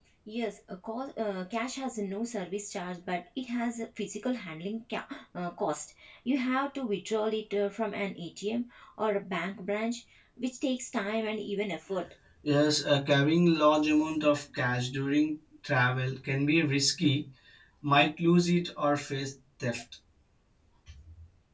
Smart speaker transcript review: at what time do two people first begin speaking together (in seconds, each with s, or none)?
none